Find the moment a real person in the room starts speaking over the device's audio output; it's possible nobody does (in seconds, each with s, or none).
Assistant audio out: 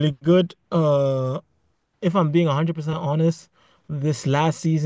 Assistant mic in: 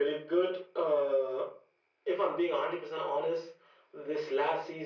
none